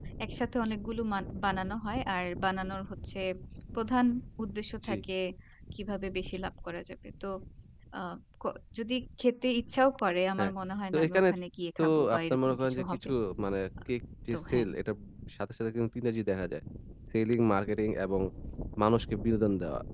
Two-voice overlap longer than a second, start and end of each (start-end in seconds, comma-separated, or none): 11.8-13.1